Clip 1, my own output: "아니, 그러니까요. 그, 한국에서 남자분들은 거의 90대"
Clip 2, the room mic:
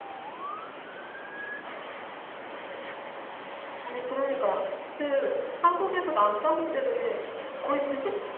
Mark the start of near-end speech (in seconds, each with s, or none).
none